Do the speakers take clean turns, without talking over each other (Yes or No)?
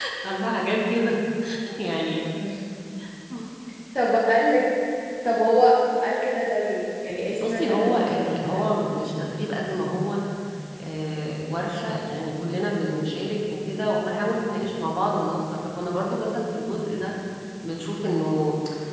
No